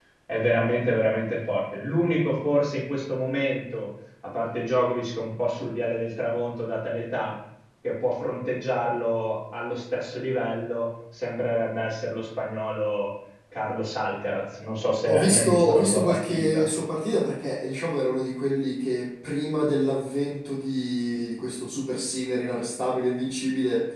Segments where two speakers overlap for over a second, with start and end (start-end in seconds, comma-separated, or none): 15.1-16.7